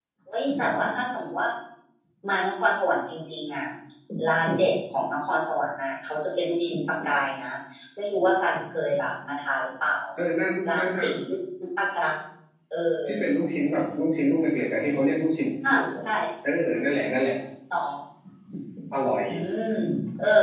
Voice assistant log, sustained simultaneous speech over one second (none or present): none